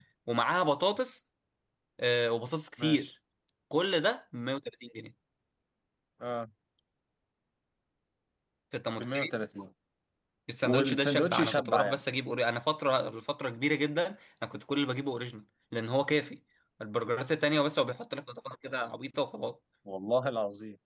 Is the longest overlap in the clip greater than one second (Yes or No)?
Yes